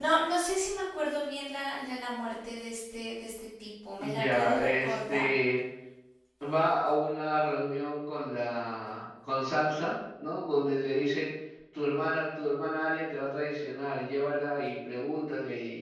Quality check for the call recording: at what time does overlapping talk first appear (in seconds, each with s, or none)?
4.0 s